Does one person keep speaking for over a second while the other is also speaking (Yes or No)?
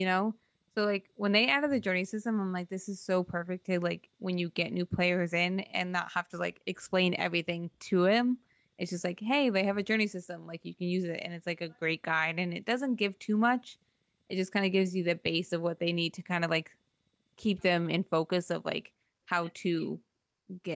No